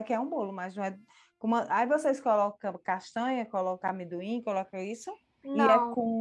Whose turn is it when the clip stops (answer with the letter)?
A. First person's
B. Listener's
A